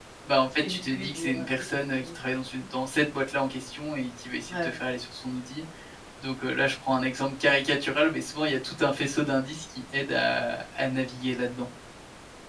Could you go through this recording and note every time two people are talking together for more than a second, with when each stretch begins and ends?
0.6-2.1

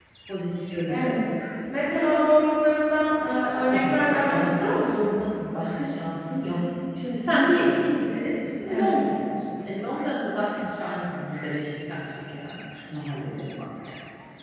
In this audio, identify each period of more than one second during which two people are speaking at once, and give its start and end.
3.6-5.1

